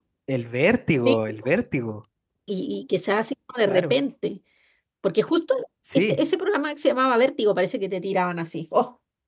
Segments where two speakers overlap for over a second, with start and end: none

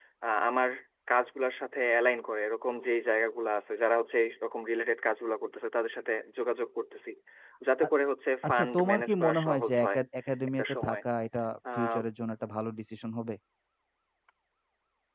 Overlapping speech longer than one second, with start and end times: 8.5-10.0

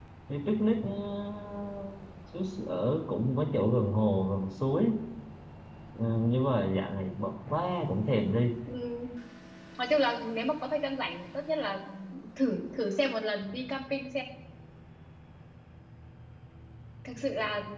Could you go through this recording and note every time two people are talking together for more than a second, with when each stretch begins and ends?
none

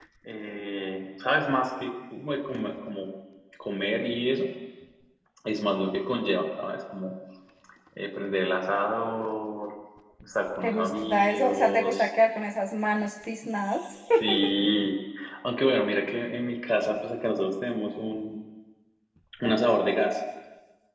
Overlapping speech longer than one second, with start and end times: 10.6-12.1

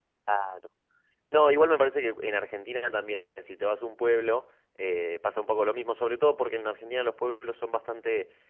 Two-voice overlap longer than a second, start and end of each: none

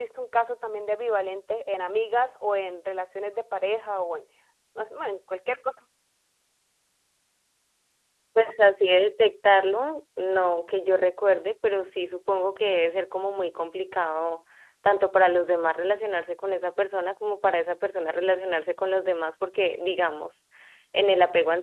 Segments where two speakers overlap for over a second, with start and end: none

